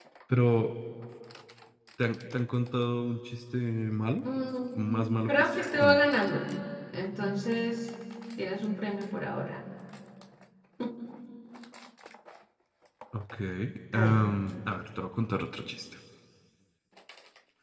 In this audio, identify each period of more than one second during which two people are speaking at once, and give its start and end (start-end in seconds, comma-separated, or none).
4.8-6.0